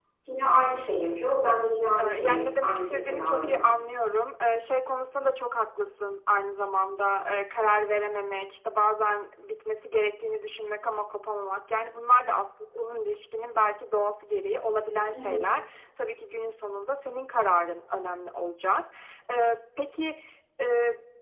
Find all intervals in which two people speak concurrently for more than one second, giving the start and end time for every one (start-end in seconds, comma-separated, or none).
2.0-3.7